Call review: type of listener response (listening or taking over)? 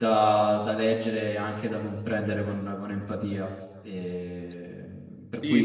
taking over